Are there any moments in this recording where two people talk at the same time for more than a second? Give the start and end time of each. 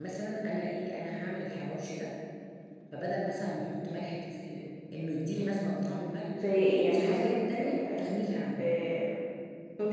6.7-8.1

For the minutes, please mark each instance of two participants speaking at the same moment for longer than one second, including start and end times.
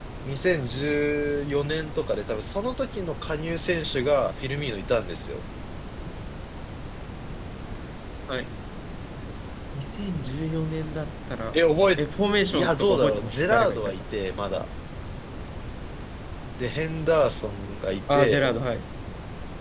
12.6-13.9

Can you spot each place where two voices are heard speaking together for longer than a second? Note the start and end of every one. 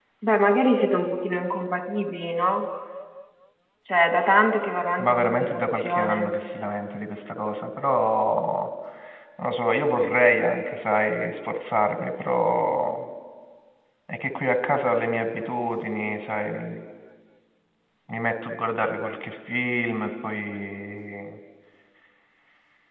5.0-6.3

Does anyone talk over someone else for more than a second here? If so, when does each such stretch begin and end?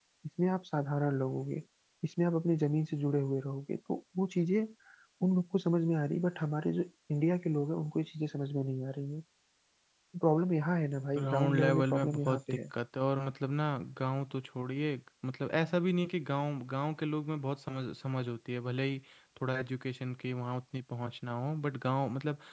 11.2-12.6

